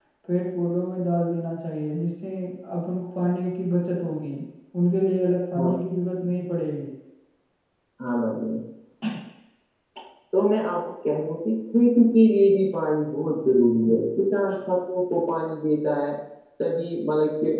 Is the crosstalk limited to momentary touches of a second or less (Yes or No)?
Yes